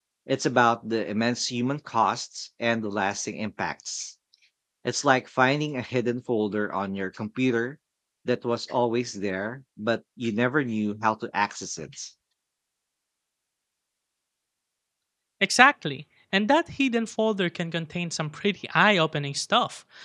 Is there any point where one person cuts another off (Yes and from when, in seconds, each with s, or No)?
No